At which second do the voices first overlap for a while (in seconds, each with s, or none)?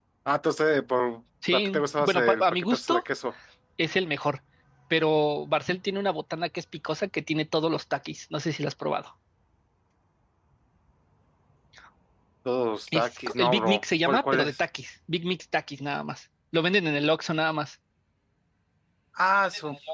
1.5 s